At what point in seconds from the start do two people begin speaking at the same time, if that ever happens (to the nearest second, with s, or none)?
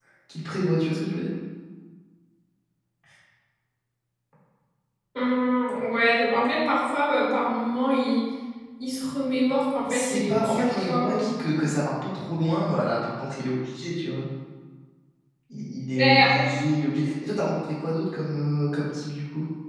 10 s